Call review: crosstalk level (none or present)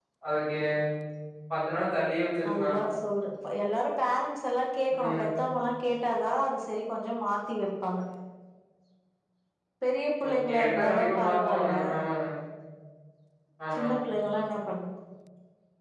present